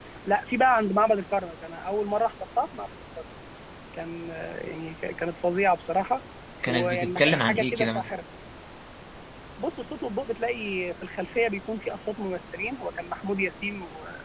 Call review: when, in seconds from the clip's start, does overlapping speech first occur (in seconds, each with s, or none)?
6.7 s